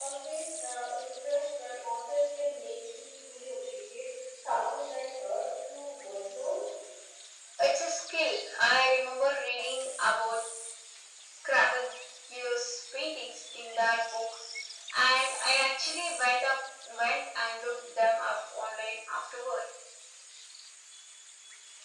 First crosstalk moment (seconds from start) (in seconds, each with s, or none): none